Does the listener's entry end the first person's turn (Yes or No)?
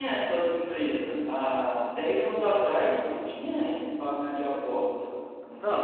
Yes